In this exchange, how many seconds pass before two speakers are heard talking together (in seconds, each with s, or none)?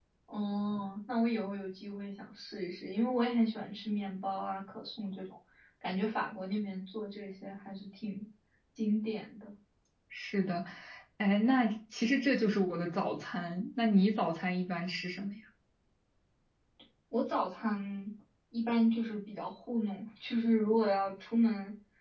none